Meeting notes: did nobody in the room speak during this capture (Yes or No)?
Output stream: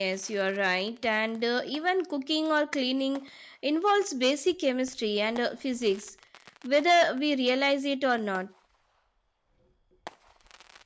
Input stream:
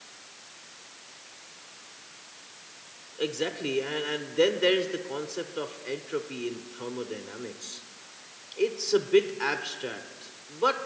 No